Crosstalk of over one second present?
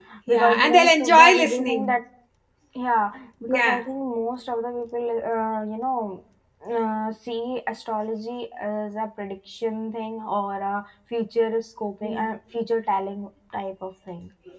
Yes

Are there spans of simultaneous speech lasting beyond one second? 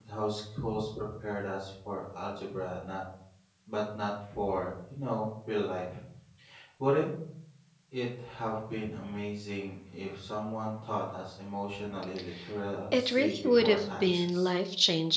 Yes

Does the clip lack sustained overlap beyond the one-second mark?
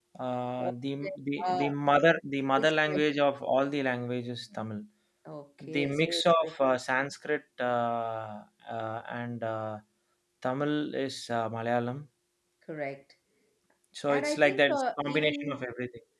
No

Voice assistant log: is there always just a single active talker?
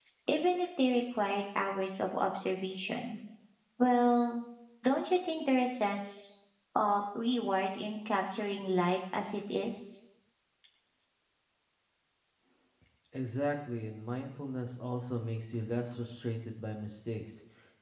Yes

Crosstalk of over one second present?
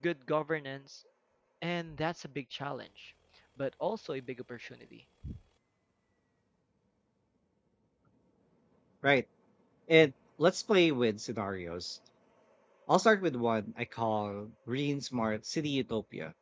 No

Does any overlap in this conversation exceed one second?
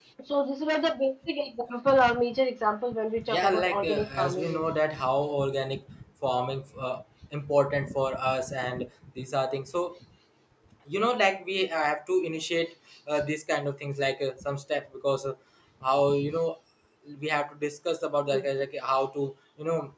Yes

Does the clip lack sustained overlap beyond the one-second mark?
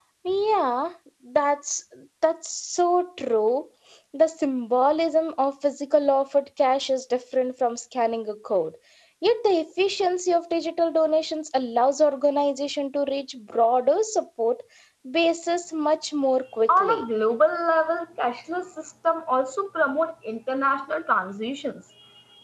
Yes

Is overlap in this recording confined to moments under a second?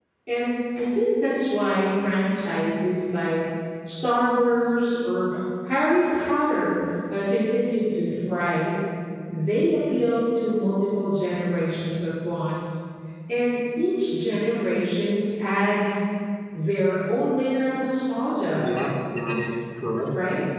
Yes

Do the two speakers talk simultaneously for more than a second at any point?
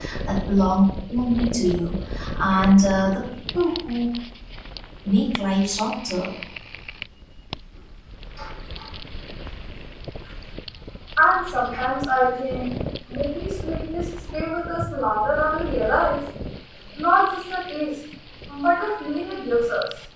No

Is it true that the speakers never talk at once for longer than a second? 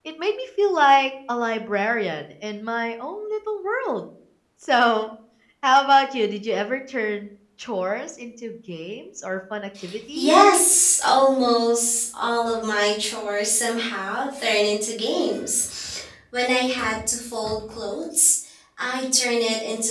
Yes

